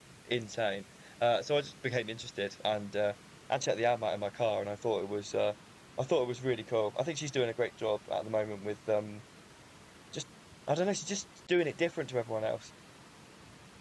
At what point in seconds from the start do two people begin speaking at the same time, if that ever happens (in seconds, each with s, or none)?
none